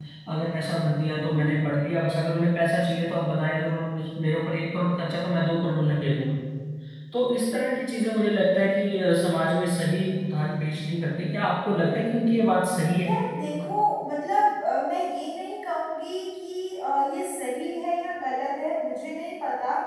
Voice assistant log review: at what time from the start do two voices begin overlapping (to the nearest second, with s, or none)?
none